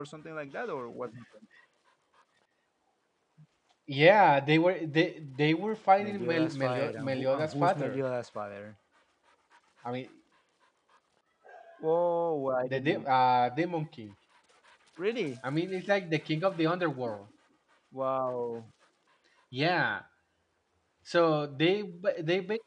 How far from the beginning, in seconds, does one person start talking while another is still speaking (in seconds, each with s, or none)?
6.0 s